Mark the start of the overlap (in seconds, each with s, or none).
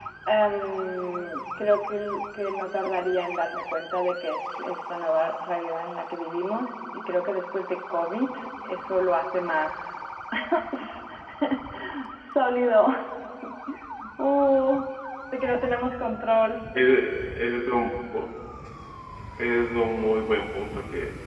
none